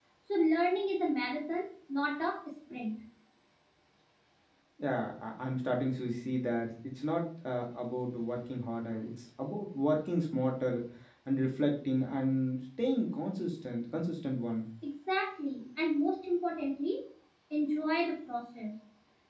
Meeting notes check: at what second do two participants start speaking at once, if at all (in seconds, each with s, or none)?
none